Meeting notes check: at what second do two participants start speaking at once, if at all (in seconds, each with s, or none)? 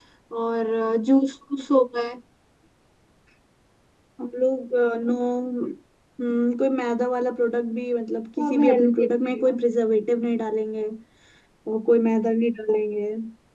8.4 s